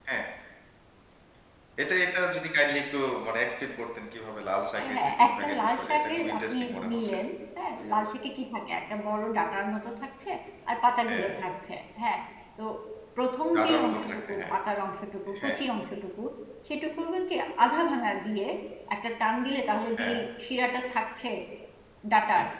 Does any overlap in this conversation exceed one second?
Yes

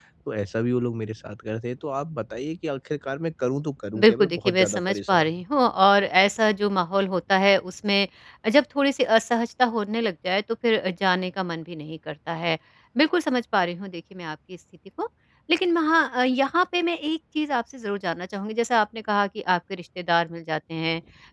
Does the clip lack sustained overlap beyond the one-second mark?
No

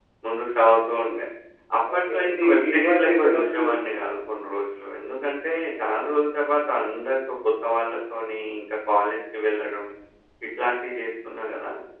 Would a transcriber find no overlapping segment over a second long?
No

